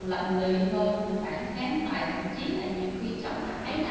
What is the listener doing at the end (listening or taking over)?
listening